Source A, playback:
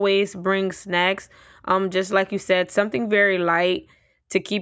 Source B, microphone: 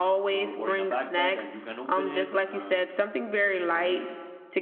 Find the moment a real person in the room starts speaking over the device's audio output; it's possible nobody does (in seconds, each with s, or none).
0.3 s